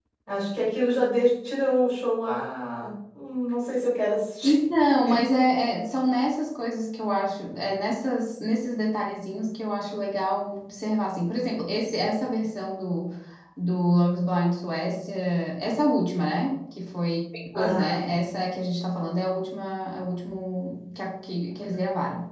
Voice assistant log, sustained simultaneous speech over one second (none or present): none